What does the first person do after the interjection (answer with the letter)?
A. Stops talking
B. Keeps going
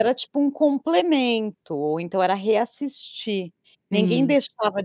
B